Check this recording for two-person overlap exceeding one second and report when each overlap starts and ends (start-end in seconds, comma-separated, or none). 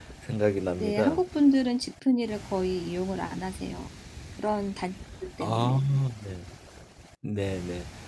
none